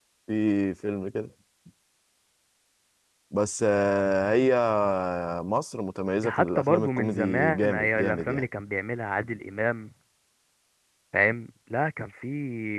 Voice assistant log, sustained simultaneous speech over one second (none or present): present